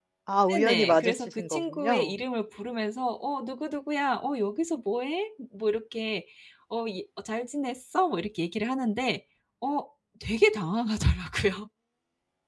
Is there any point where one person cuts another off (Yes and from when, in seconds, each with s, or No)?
Yes, from 0.5 s